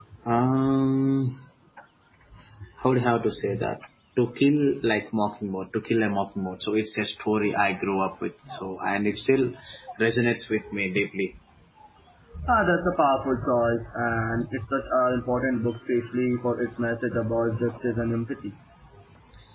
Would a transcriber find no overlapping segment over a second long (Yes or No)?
Yes